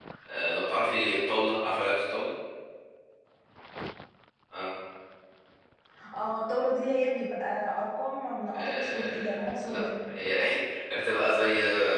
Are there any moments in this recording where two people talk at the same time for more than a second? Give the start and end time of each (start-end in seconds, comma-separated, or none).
8.5-9.8